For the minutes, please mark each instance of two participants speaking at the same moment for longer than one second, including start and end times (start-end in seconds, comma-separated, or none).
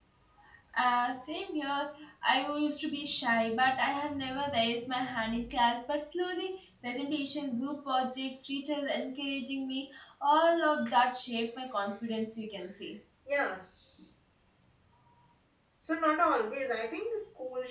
none